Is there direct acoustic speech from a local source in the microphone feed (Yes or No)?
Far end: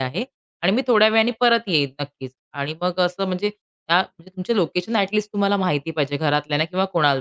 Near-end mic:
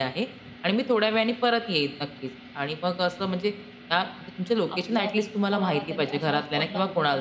Yes